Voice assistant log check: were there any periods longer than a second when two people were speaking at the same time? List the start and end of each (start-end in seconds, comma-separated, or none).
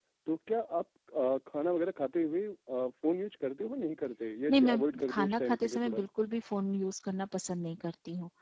4.5-6.0